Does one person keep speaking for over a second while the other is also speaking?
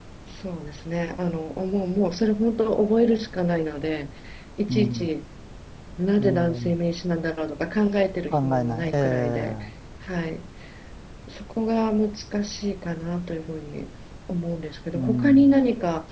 Yes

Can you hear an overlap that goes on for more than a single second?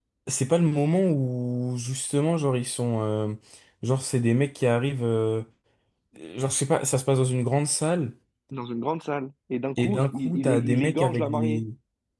Yes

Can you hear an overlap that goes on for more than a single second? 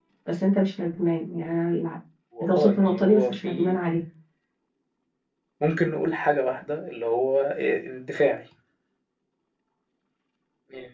Yes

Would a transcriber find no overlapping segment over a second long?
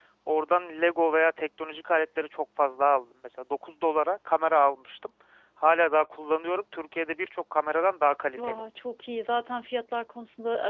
Yes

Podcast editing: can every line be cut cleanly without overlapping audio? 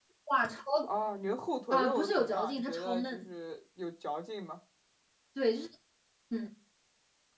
No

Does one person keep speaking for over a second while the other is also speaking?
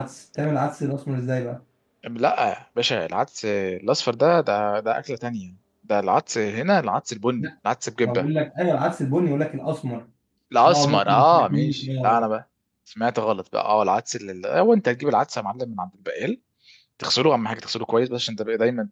Yes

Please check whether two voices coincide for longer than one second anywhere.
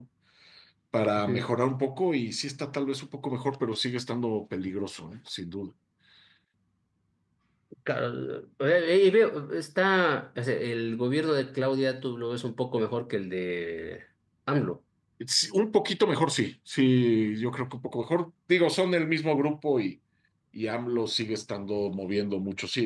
No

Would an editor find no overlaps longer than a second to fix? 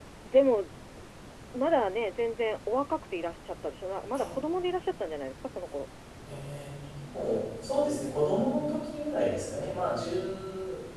Yes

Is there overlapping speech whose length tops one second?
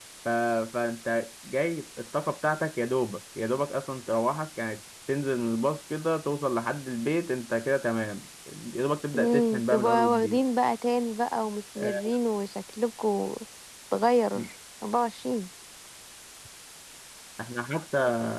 Yes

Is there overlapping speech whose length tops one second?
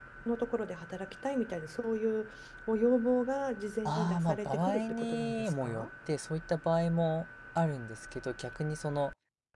Yes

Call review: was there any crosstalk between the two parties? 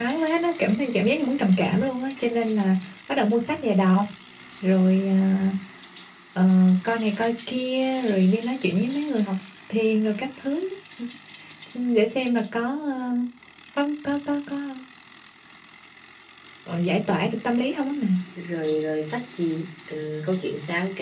No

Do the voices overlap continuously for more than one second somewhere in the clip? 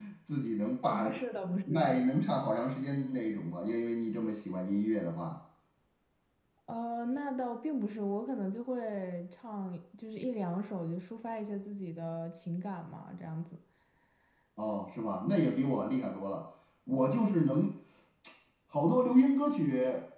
No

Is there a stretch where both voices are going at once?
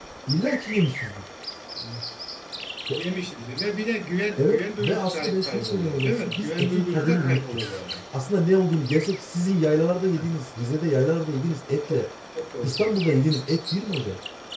Yes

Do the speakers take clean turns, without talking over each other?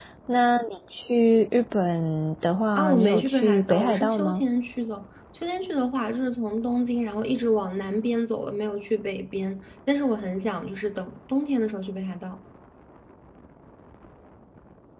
No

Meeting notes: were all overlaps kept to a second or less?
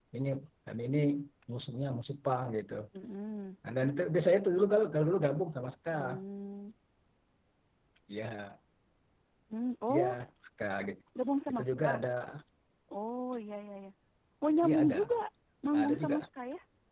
Yes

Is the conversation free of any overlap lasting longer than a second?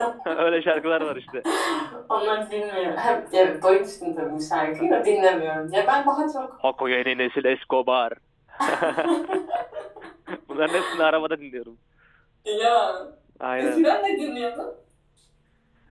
Yes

